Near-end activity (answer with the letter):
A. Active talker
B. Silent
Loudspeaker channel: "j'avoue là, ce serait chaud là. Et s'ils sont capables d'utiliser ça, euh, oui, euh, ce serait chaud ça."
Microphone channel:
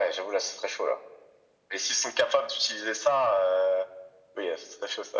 B